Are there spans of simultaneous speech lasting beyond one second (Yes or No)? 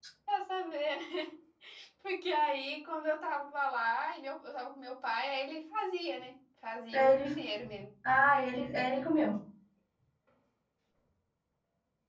No